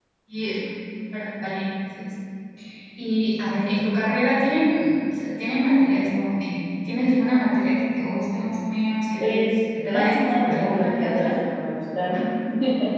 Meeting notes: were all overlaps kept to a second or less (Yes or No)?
No